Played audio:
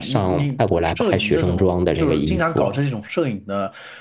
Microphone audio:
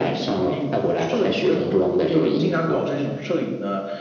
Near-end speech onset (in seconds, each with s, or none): none